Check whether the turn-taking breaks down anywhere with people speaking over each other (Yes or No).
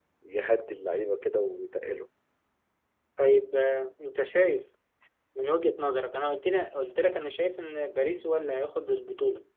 No